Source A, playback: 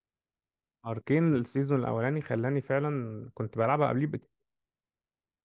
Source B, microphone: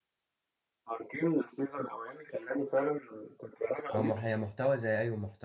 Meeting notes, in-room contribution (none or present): present